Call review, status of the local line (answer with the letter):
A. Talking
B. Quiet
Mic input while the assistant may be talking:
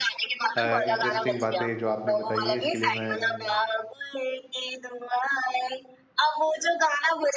A